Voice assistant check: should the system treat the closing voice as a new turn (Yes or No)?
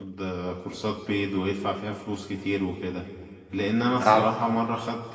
No